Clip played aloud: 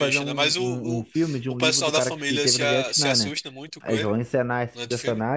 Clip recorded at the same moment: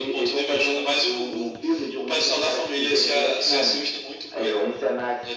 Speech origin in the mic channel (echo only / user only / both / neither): echo only